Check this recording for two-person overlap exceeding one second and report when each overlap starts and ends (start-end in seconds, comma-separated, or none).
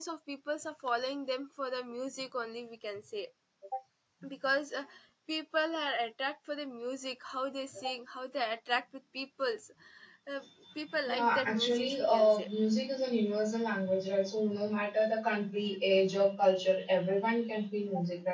11.0-12.5